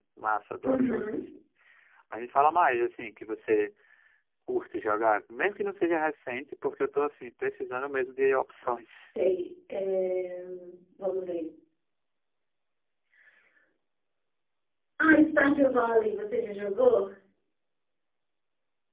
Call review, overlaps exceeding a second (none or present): none